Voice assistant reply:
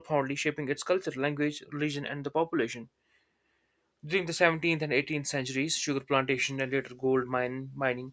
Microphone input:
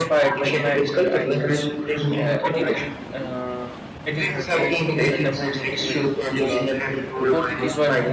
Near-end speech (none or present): present